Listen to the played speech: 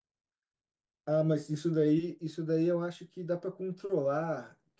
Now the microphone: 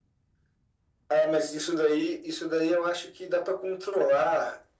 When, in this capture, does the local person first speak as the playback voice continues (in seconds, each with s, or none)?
none